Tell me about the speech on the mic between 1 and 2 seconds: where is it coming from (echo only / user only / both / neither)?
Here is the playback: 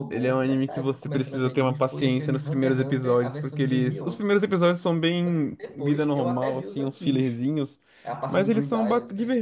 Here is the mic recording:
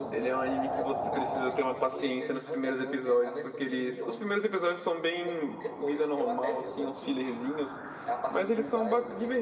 echo only